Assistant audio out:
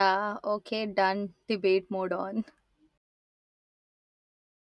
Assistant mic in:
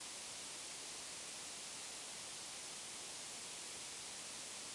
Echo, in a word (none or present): none